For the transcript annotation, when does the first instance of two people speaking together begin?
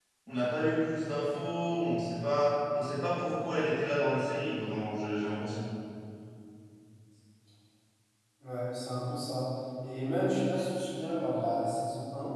none

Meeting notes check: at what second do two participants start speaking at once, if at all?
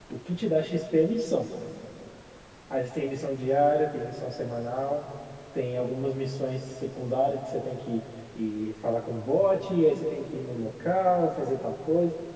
none

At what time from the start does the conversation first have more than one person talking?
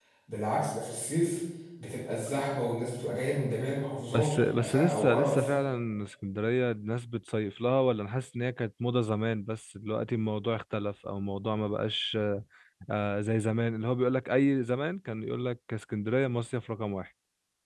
4.1 s

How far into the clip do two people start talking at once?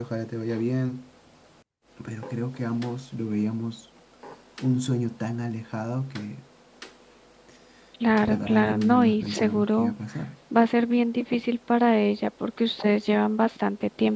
8.3 s

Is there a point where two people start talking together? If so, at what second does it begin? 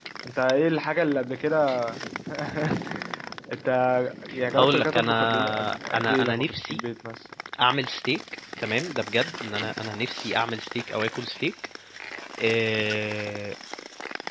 4.5 s

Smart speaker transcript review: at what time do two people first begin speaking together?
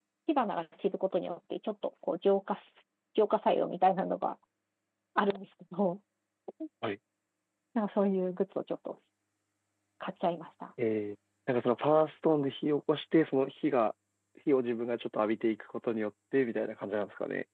none

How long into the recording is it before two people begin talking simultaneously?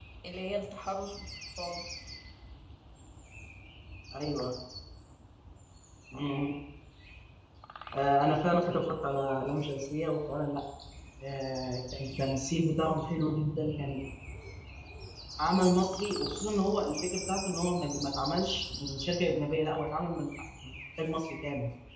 none

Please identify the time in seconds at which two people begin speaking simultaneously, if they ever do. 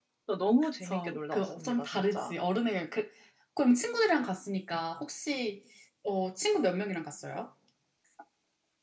0.8 s

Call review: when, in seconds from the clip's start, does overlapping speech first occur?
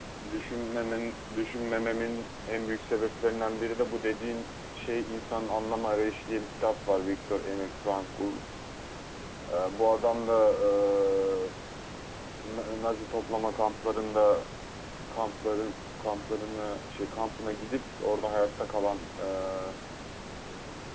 none

